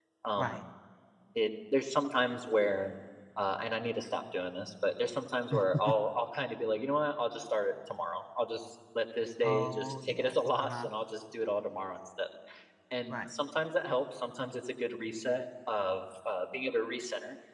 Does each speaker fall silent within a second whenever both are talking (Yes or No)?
No